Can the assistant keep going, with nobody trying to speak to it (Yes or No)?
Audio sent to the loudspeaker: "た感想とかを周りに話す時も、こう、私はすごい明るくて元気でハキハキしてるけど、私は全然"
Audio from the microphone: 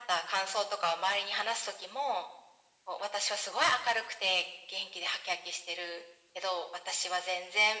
Yes